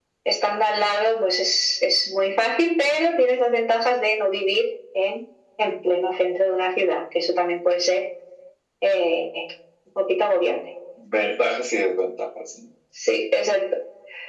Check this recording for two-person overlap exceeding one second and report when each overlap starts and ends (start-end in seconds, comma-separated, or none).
none